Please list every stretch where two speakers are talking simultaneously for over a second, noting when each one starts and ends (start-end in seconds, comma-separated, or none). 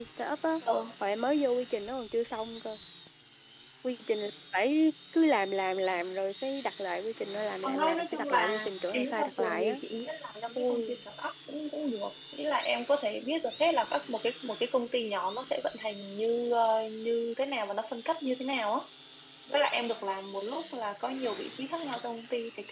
7.6-9.8